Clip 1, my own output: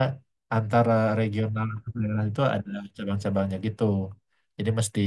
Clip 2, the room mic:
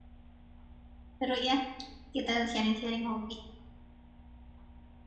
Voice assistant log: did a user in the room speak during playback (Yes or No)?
Yes